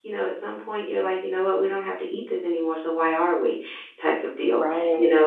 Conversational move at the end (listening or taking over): listening